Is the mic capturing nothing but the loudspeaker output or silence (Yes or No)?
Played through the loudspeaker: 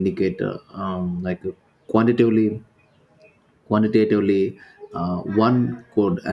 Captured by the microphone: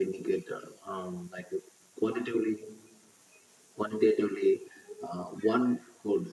Yes